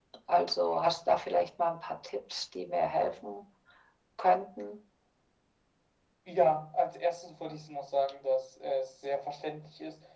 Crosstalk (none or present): none